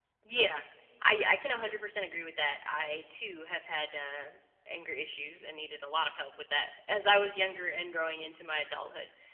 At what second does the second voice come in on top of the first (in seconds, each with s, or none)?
none